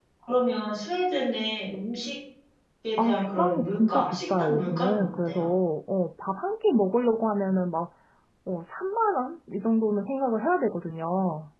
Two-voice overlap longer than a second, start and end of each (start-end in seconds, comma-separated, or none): 3.0-5.5